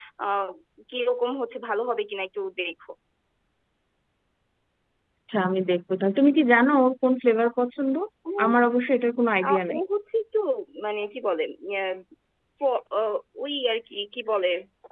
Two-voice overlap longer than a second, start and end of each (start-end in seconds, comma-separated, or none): none